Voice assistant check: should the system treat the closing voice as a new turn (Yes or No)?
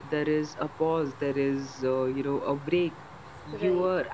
No